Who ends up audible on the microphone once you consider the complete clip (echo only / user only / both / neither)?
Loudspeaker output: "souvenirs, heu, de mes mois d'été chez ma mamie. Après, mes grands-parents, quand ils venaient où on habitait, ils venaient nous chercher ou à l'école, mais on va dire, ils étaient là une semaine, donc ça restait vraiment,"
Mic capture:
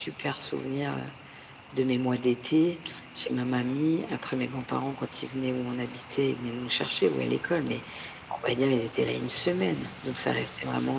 echo only